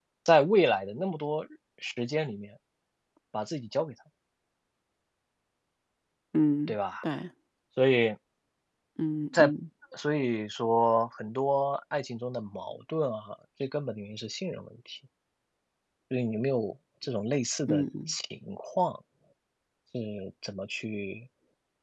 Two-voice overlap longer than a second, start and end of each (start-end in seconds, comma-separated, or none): none